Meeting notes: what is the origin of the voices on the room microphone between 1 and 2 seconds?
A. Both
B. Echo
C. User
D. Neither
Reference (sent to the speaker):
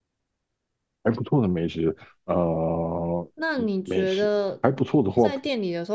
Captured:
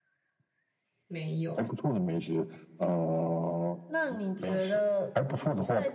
A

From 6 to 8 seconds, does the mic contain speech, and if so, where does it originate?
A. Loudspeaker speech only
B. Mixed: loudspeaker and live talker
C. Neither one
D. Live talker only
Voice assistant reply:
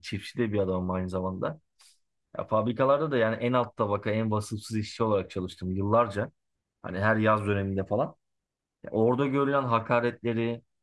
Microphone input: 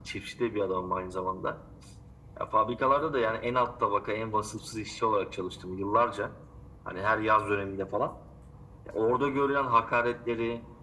A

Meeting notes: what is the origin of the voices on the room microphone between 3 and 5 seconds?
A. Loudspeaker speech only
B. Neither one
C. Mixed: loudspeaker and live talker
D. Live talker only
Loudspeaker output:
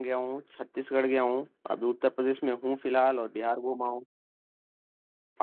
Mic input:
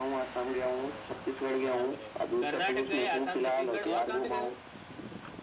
C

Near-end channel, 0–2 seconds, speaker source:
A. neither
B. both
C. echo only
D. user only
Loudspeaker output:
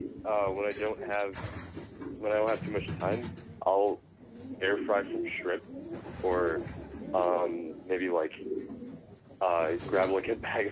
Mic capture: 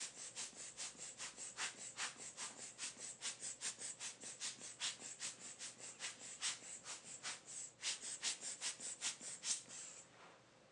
A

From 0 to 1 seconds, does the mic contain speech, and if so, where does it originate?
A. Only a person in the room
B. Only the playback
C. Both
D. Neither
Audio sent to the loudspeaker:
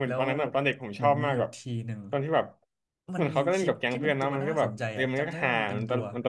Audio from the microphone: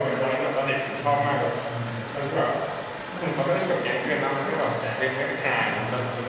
B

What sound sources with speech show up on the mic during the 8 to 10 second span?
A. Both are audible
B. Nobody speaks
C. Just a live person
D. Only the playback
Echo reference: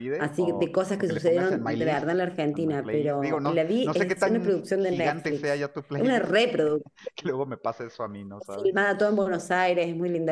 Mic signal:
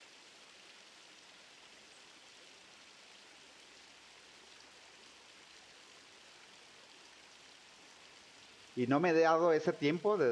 C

